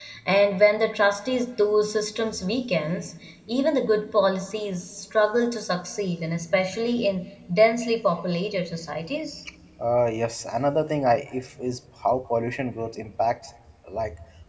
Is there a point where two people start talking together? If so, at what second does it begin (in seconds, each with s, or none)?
none